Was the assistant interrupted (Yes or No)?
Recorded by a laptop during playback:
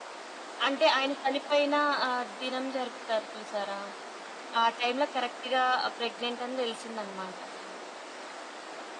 No